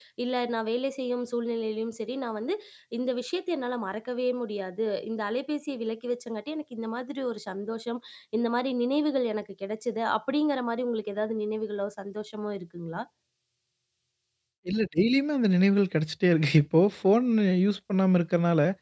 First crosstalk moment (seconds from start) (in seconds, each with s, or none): none